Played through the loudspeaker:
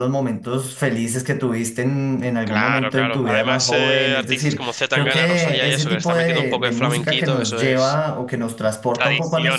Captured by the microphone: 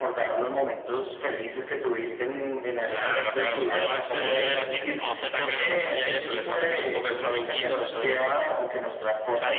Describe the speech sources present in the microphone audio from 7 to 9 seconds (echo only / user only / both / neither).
echo only